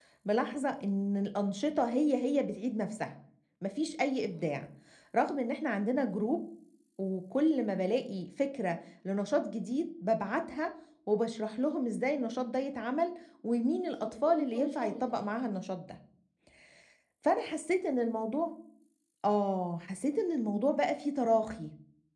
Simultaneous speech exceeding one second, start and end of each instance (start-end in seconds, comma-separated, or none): 13.8-15.3